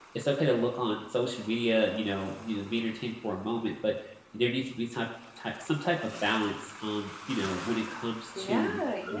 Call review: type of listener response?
taking over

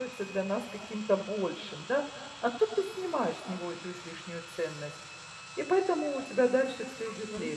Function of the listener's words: taking over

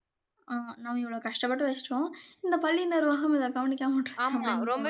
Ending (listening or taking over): taking over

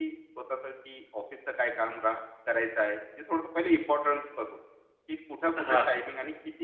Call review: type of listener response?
listening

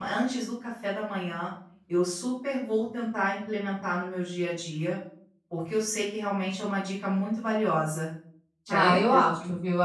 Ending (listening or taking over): taking over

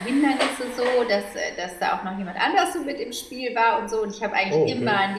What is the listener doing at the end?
listening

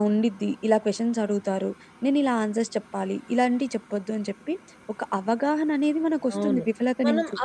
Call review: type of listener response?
taking over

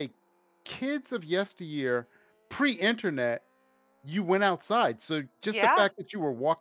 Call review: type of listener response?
listening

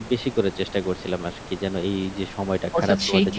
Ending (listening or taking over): taking over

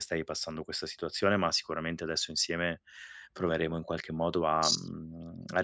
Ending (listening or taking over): listening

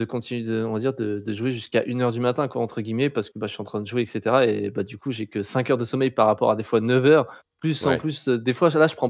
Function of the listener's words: listening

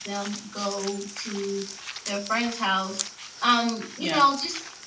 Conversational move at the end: listening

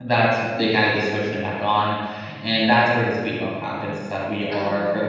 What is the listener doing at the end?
listening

